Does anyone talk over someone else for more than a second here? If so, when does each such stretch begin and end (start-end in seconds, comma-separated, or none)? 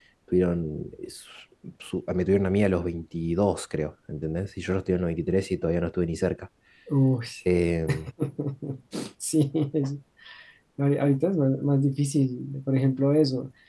none